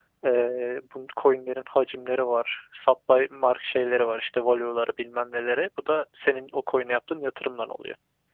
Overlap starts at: none

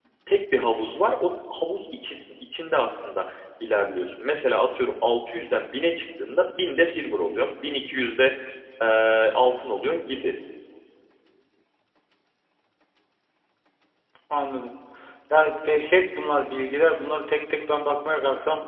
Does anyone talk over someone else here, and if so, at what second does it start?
none

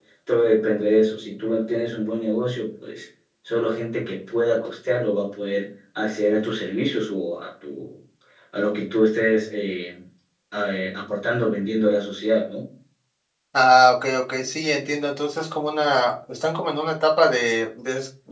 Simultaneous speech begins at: none

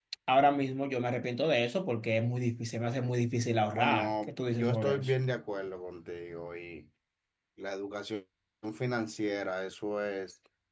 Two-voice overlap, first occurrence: 4 s

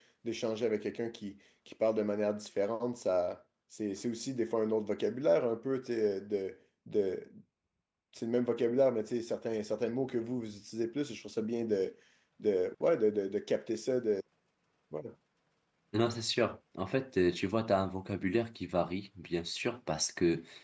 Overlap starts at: none

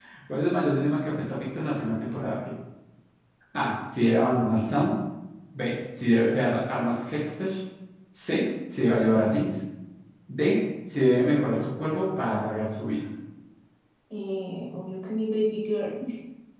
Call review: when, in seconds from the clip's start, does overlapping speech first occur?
none

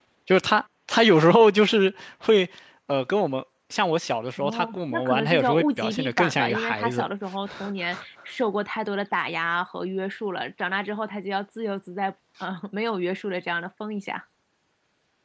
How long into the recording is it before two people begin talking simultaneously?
4 s

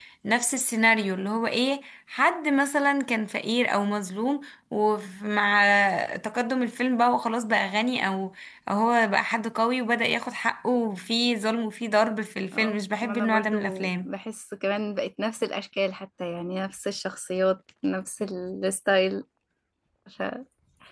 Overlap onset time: 13 s

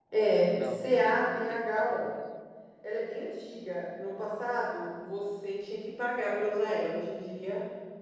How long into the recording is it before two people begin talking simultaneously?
1 s

